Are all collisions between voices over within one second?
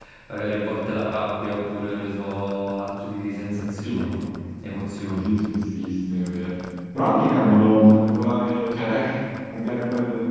Yes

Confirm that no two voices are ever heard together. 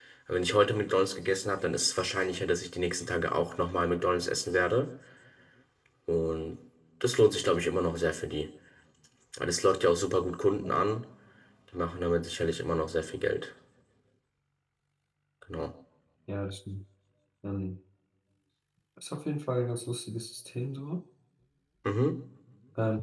Yes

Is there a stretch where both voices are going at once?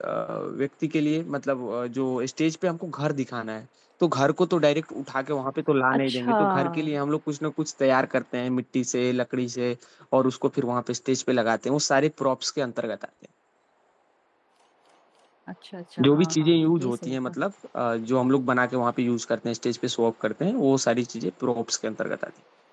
Yes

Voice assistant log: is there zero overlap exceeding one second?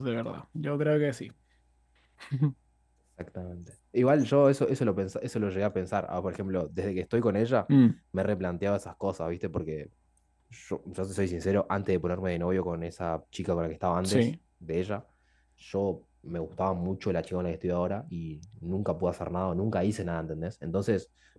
Yes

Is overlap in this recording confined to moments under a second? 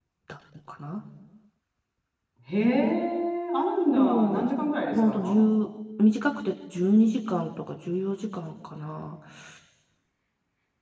Yes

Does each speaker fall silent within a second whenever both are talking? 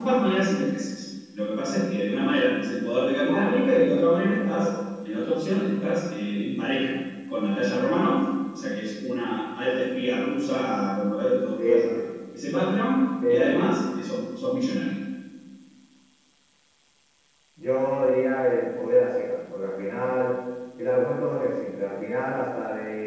No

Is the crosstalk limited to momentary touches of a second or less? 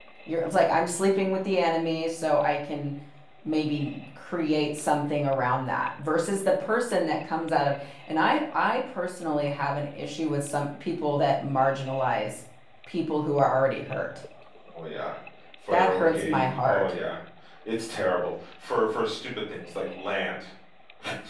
No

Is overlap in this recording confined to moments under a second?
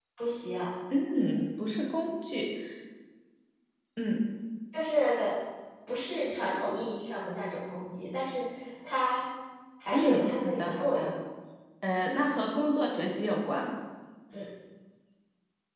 No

